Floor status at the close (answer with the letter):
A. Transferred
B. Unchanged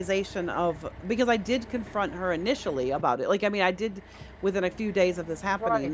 A